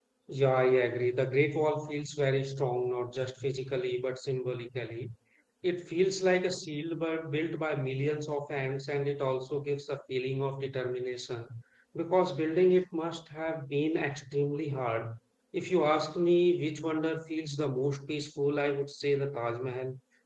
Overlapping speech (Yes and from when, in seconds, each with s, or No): No